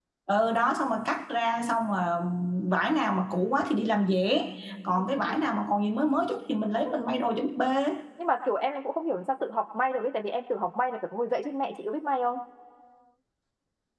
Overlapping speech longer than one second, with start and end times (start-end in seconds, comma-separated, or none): none